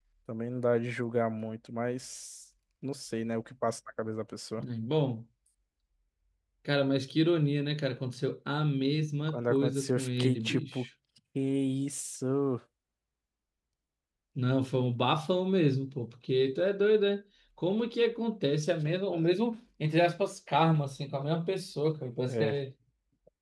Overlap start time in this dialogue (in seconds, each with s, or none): 9.3 s